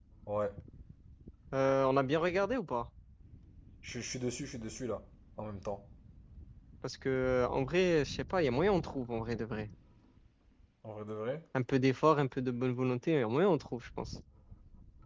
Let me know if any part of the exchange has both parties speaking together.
No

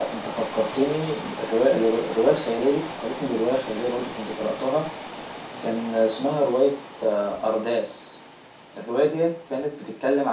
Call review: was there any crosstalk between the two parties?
No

